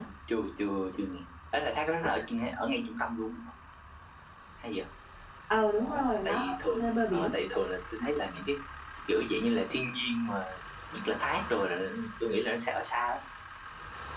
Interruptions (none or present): present